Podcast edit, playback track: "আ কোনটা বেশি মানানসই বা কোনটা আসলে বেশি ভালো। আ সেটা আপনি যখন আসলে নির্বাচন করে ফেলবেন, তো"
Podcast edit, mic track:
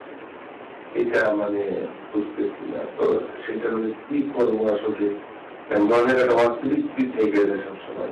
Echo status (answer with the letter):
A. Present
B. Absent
B